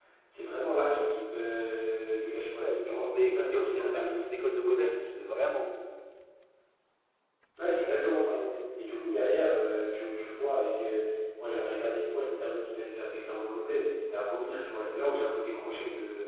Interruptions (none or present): present